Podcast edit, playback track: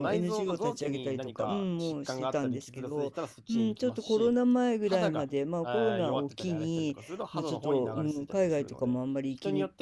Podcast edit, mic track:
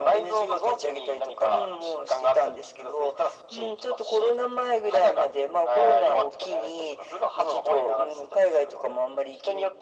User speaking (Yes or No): No